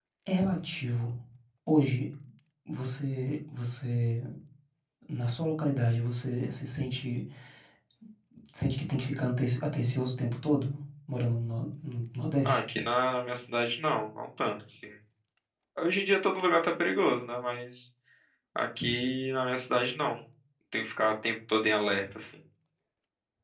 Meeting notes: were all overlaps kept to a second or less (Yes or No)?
Yes